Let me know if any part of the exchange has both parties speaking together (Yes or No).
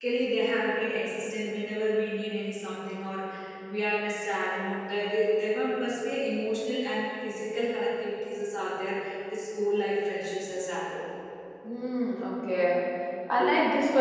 No